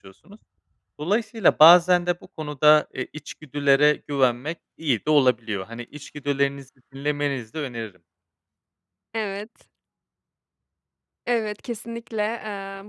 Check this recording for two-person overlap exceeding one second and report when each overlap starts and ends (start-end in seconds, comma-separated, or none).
none